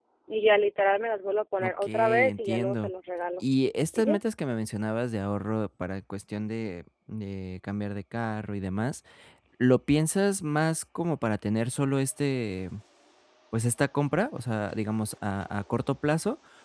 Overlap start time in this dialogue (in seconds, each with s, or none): 1.6 s